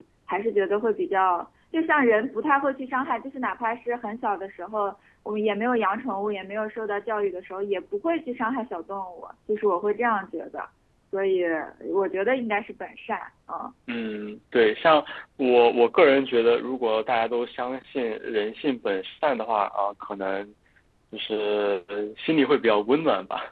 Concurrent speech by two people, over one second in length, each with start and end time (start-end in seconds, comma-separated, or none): none